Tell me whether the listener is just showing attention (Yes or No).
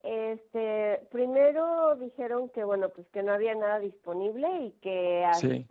Yes